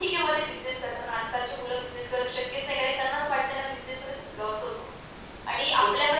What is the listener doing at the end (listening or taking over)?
listening